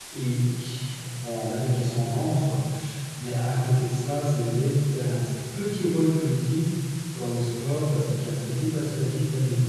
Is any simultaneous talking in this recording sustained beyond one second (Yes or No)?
No